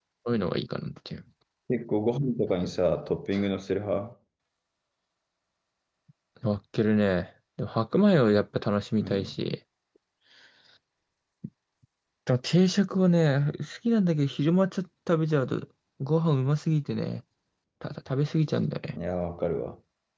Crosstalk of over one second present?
No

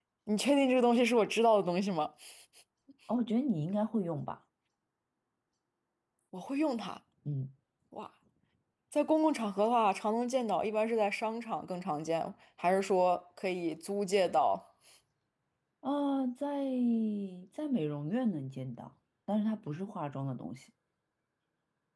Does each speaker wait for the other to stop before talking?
Yes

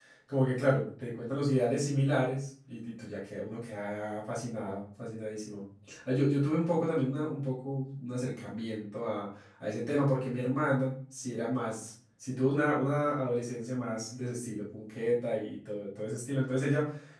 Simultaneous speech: No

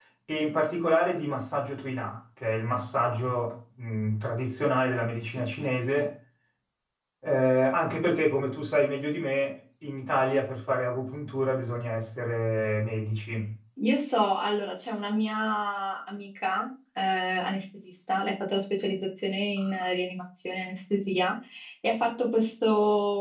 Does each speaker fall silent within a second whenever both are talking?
Yes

